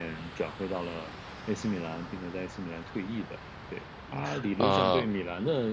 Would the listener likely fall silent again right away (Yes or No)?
Yes